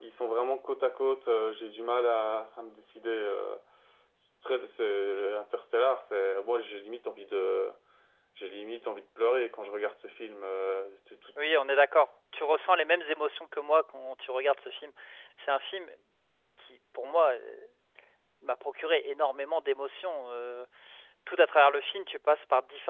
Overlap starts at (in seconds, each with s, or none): none